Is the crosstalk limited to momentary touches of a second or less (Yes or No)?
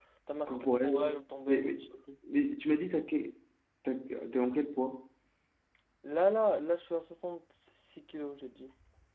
No